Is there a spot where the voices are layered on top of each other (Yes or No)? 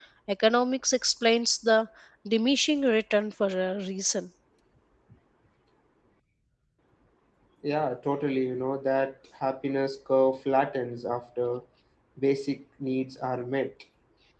No